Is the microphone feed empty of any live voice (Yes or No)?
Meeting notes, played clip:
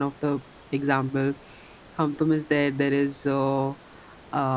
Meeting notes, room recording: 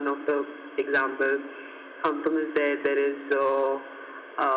Yes